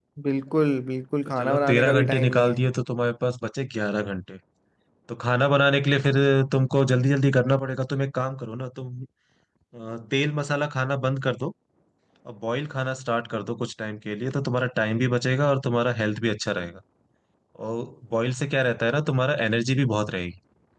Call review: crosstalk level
present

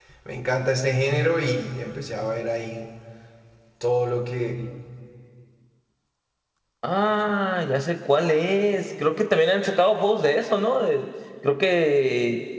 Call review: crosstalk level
none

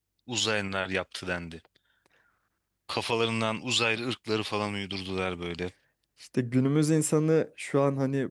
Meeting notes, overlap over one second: none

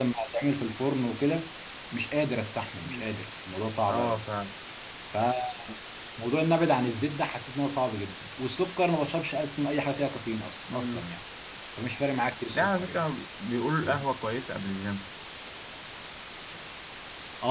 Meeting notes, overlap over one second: none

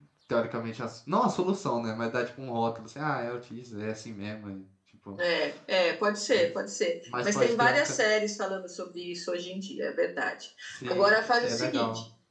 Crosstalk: present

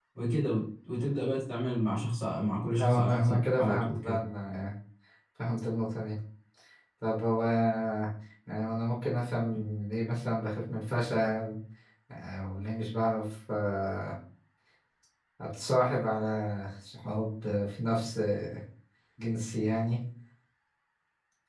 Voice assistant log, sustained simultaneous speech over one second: present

